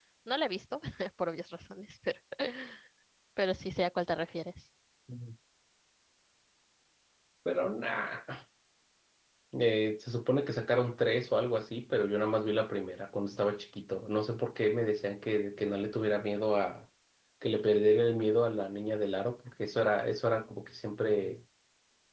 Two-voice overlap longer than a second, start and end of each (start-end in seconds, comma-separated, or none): none